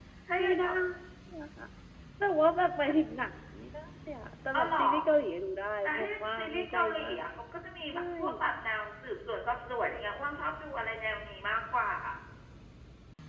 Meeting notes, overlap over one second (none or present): present